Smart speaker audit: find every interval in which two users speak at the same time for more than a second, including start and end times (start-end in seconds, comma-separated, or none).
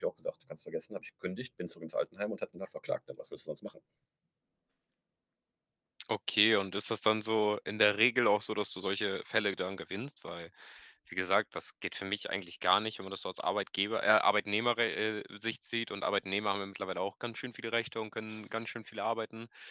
none